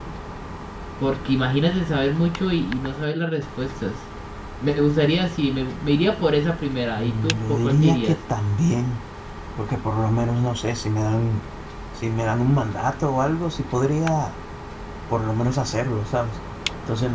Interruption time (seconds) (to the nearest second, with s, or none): 7 s